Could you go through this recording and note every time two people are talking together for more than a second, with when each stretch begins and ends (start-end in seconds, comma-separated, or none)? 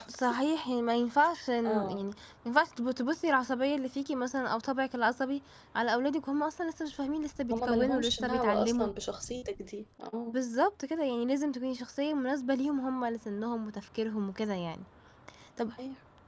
7.5-8.9